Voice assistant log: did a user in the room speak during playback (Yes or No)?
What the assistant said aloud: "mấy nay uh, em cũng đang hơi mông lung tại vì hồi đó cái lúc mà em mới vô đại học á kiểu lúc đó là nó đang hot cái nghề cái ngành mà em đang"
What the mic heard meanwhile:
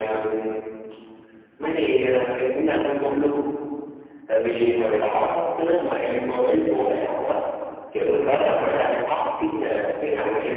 Yes